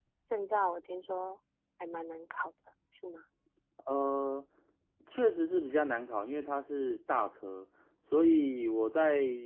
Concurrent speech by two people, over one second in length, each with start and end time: none

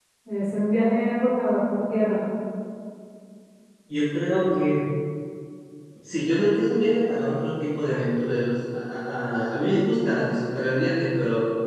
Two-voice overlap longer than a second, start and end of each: none

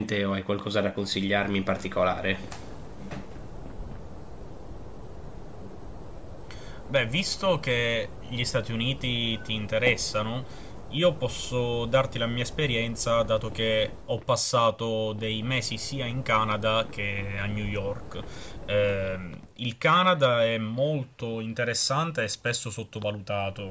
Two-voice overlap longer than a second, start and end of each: none

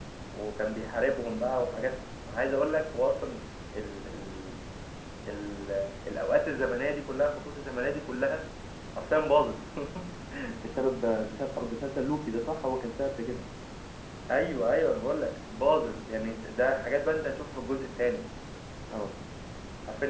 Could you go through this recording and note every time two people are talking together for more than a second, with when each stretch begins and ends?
none

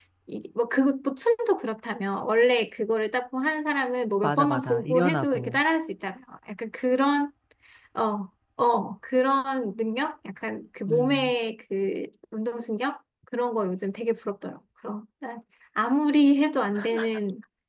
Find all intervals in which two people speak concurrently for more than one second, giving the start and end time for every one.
4.2-5.6

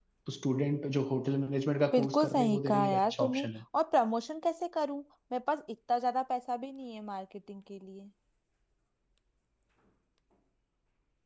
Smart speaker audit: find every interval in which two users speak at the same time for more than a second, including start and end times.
1.9-3.5

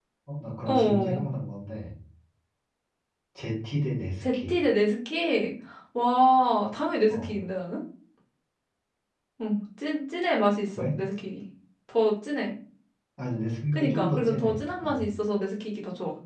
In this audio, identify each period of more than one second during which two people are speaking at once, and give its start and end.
13.7-15.1

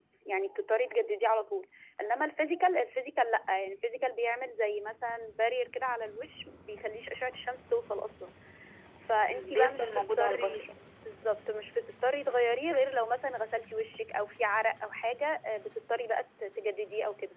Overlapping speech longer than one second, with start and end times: 9.2-10.6

